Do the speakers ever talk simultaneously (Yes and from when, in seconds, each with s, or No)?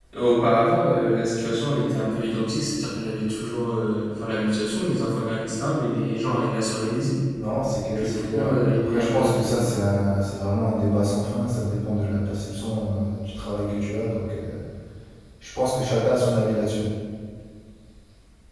Yes, from 8.0 s